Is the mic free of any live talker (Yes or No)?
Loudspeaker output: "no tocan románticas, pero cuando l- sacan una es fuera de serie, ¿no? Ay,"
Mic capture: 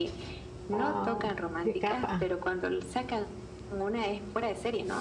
No